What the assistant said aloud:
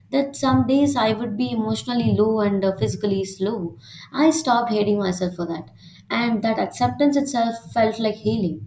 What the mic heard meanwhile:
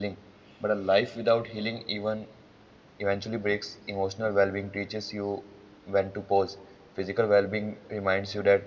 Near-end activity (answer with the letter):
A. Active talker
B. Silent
A